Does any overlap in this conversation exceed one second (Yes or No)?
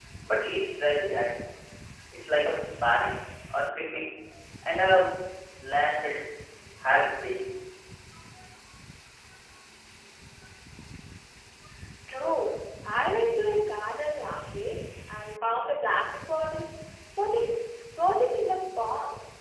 No